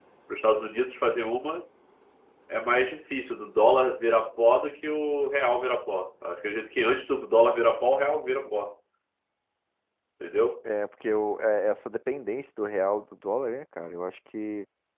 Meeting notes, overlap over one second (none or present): none